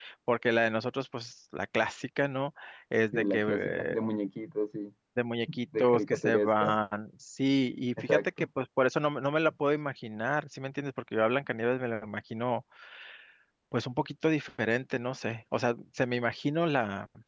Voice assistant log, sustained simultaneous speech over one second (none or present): present